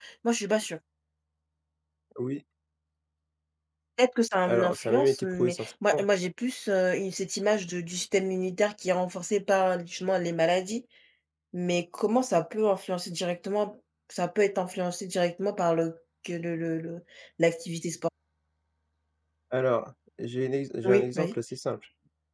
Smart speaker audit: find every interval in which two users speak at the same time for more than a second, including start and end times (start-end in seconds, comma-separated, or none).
4.4-6.0